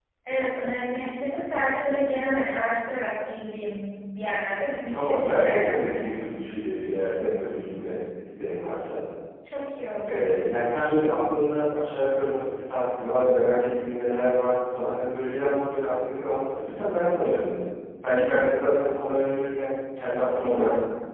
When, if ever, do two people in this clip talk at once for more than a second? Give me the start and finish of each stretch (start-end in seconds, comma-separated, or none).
4.9-6.2